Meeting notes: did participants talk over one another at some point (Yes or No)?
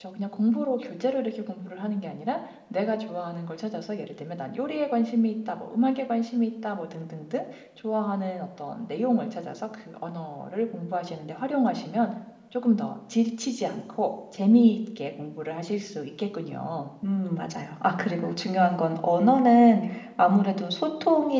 No